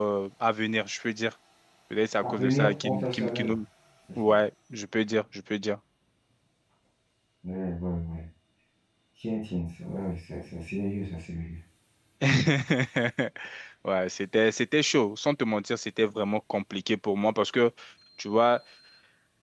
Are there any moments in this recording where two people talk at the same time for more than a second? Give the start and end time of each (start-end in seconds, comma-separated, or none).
2.2-3.6